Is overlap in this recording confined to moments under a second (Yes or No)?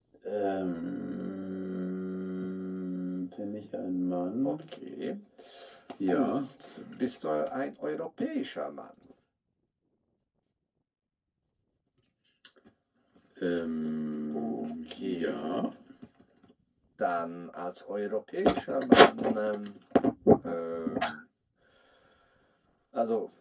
No